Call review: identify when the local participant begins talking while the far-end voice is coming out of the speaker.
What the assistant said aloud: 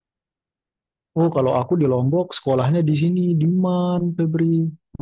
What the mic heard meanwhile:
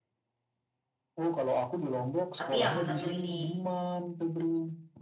2.4 s

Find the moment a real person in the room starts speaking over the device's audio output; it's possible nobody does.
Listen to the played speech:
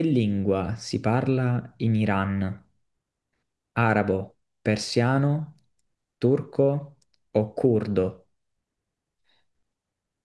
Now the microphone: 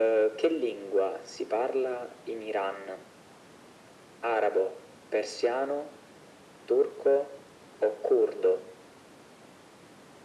none

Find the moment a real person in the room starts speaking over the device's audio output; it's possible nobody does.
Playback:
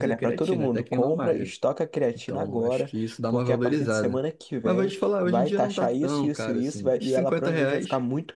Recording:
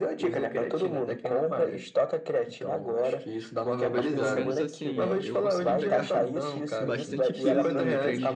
3.9 s

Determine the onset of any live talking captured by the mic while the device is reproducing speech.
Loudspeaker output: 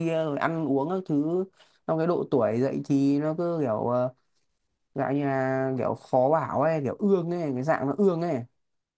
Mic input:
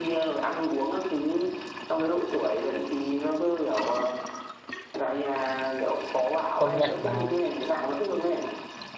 6.6 s

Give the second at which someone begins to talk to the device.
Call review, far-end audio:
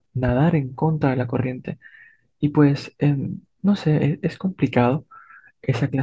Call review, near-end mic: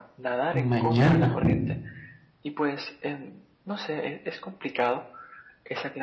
0.5 s

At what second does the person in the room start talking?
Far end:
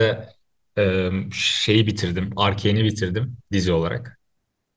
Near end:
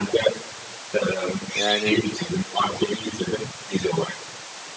1.5 s

